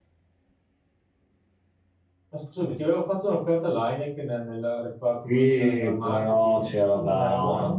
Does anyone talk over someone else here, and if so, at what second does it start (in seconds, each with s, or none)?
5.3 s